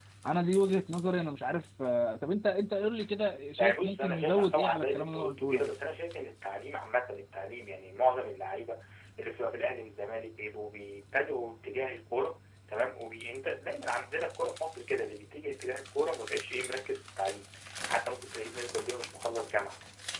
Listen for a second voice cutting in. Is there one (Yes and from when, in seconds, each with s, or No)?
Yes, from 3.6 s